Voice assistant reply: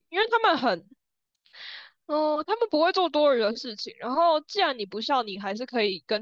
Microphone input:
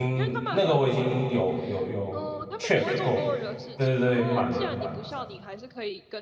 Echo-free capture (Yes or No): No